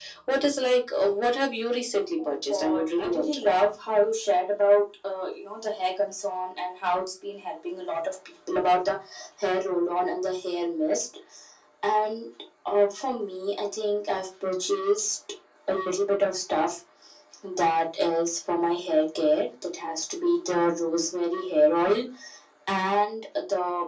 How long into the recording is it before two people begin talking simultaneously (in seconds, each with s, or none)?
2.2 s